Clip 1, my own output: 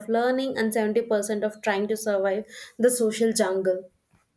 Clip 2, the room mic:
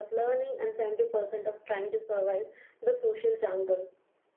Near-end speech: none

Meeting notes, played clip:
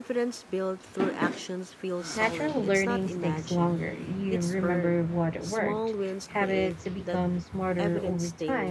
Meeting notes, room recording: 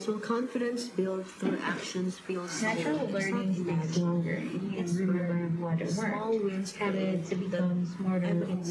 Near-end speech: none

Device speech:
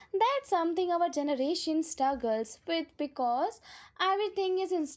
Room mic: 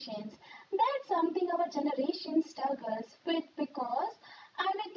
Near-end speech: none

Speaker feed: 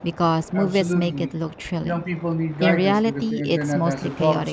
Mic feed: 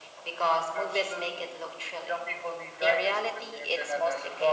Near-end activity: none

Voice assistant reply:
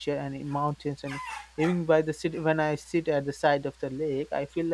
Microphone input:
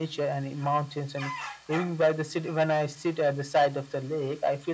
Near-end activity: none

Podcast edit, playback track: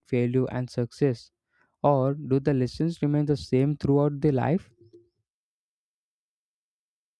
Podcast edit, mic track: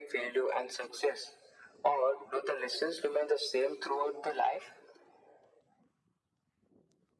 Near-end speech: none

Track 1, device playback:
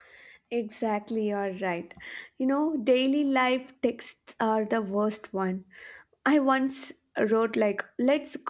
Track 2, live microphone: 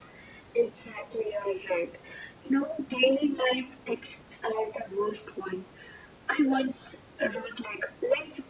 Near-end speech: none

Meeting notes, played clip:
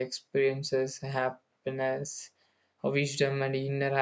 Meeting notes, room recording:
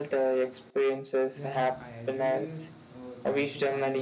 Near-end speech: present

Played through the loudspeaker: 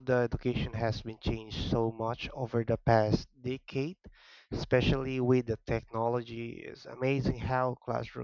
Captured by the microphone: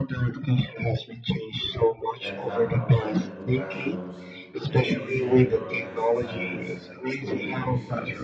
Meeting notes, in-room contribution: present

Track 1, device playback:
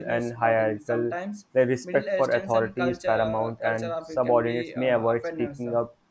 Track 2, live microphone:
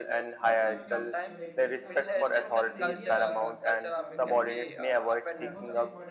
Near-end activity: present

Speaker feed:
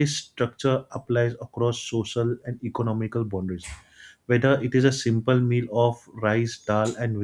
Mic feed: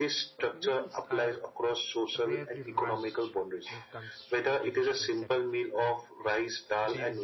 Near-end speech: present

